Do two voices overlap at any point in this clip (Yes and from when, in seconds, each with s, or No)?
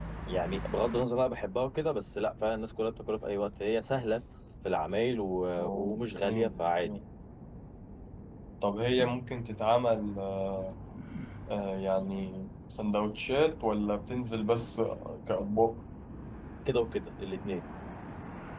Yes, from 5.6 s